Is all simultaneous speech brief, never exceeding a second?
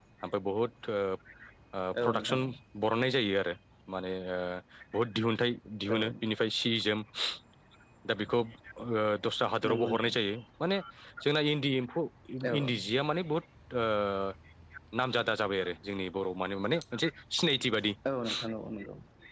Yes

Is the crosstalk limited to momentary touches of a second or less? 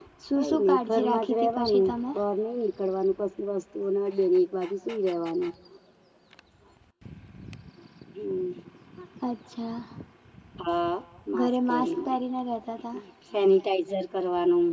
No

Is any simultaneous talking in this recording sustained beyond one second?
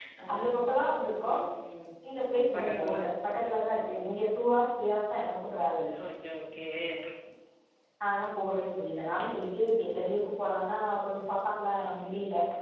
Yes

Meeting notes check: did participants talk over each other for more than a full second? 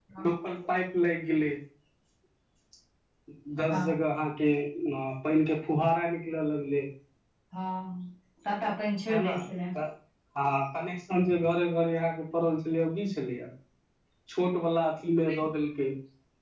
No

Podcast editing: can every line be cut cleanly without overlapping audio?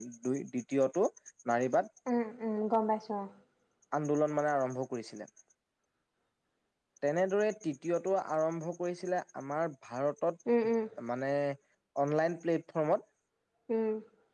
Yes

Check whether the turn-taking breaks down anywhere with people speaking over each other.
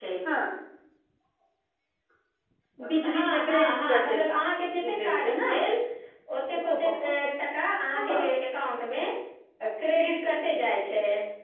Yes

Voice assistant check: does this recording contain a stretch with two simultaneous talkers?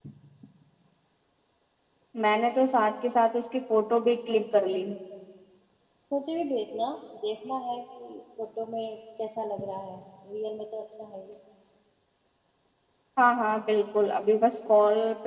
No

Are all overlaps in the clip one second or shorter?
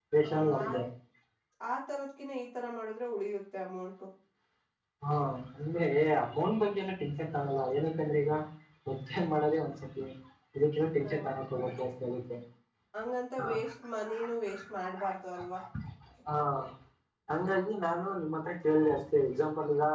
Yes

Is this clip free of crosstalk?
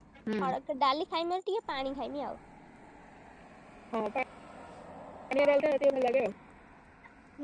Yes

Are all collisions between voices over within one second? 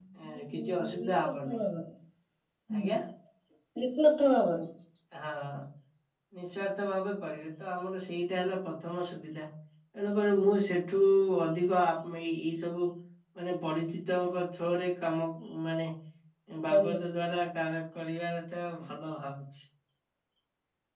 No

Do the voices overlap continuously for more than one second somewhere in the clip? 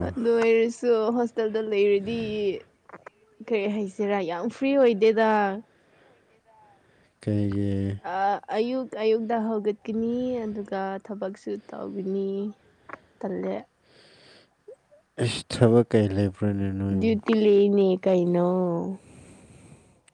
No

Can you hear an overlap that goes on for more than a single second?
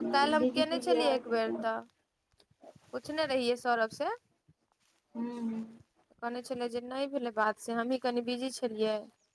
Yes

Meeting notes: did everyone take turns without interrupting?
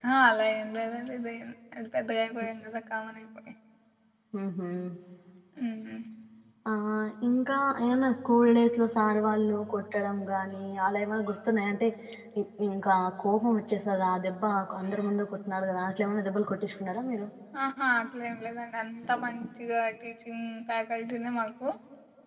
Yes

